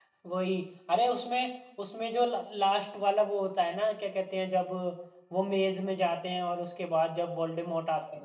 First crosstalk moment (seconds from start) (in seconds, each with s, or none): none